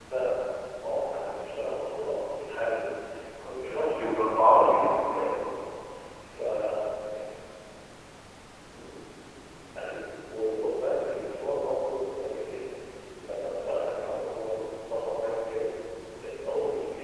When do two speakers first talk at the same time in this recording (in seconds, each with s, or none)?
3.4 s